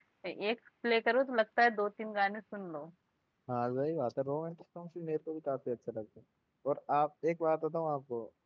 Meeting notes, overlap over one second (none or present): none